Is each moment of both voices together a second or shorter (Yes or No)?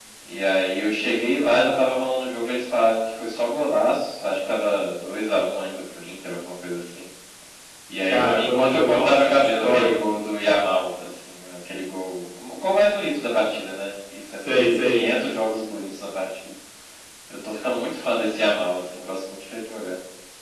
No